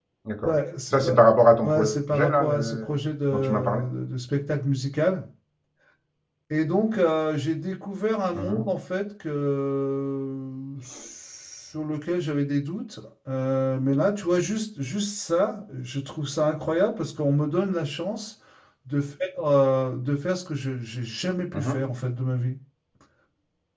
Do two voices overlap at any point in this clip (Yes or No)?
Yes